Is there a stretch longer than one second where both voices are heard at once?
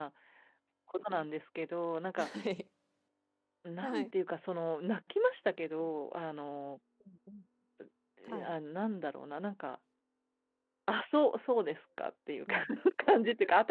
No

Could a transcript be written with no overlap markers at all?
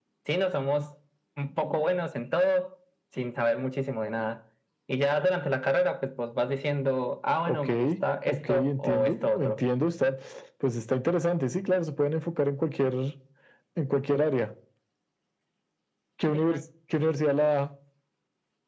No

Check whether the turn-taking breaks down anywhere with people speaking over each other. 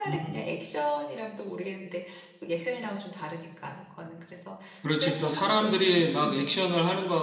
Yes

